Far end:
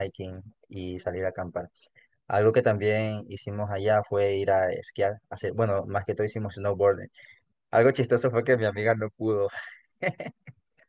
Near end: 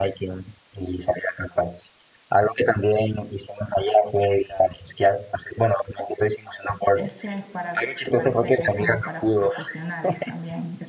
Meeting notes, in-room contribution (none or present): present